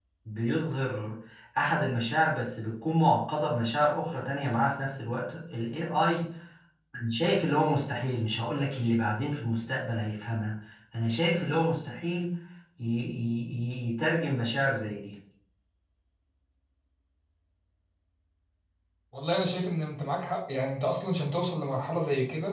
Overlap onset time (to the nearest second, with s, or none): none